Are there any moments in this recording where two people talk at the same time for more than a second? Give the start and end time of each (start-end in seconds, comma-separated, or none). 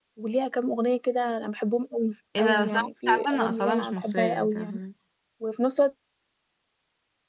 2.4-4.8